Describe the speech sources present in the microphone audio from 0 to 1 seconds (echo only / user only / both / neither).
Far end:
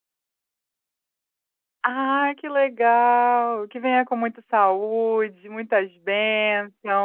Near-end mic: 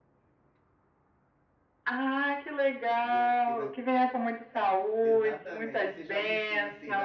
neither